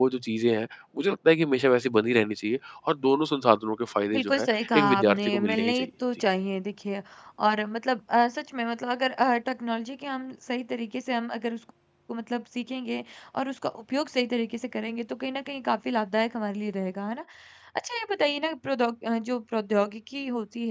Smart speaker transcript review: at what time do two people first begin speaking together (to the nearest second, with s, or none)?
4 s